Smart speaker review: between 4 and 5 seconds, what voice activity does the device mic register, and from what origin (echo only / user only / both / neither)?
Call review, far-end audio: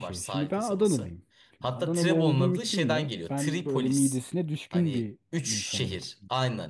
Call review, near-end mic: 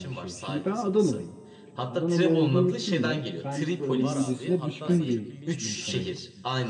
both